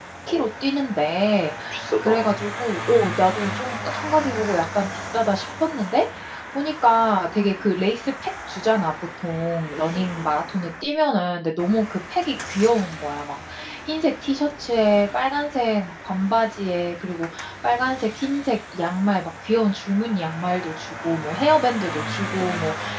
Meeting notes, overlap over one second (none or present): present